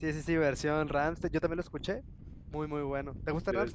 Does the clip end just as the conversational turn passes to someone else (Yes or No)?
Yes